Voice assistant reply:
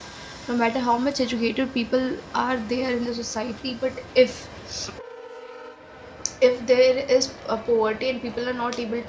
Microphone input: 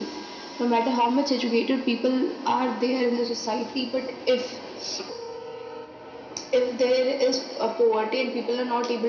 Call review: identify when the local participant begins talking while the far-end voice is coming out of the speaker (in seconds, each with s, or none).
none